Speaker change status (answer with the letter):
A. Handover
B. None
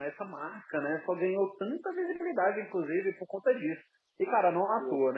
B